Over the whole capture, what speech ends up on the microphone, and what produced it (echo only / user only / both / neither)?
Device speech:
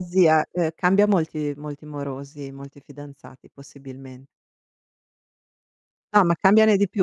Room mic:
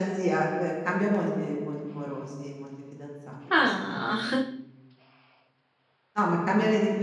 both